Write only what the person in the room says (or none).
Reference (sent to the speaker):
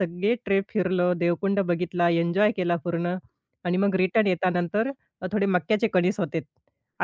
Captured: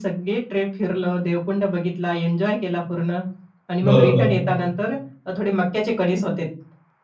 बरोबर.